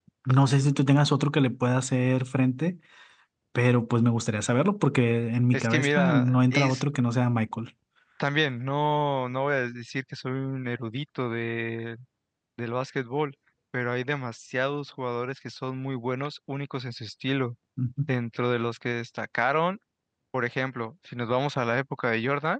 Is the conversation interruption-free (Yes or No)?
No